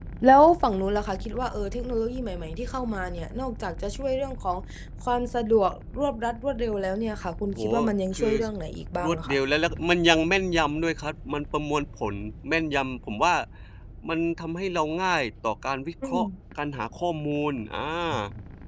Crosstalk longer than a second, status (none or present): none